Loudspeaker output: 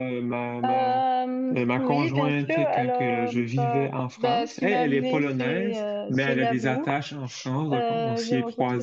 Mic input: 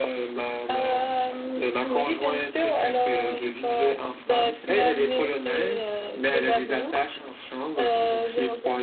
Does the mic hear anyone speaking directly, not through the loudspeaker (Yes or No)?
No